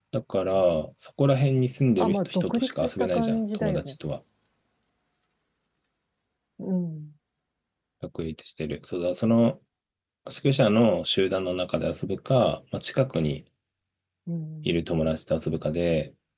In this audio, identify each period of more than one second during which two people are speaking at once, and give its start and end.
2.0-3.9

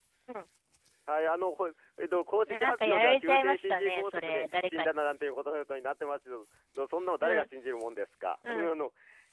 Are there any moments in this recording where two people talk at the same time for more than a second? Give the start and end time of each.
2.5-4.9

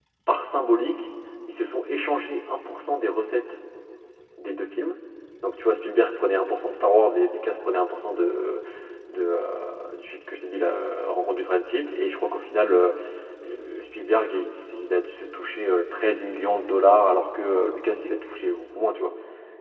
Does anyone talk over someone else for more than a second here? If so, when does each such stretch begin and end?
none

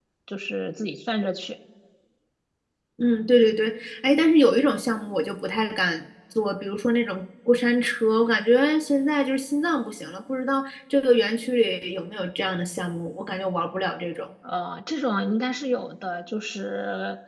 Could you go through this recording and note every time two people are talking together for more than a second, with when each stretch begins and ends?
none

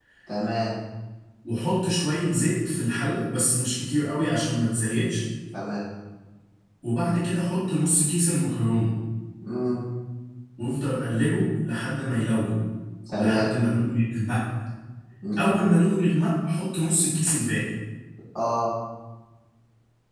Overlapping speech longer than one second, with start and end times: none

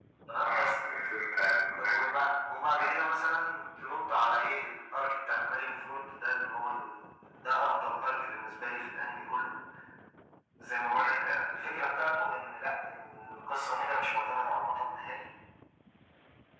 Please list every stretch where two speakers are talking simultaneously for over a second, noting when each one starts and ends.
none

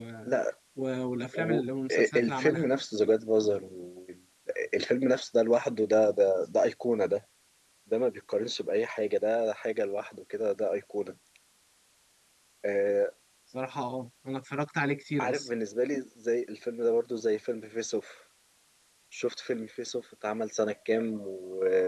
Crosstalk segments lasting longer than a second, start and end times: 1.3-2.6

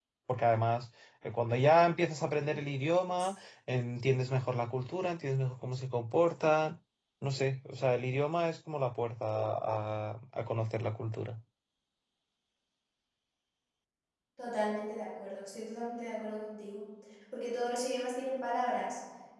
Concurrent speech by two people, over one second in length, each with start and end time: none

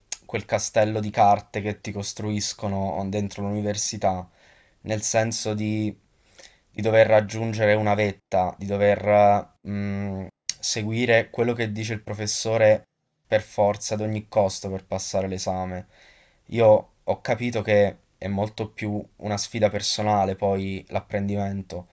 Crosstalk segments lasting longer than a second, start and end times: none

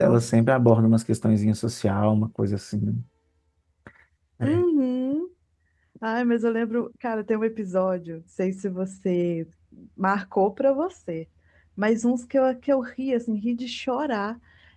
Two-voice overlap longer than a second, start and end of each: none

